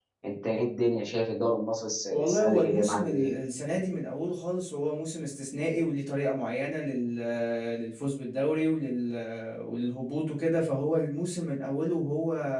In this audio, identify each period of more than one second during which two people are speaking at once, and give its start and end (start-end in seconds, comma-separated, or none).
2.1-3.3